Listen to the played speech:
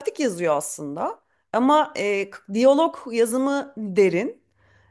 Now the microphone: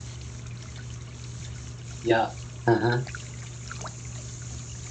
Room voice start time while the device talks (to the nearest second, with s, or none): 2 s